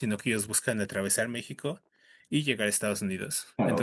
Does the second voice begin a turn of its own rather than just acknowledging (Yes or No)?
No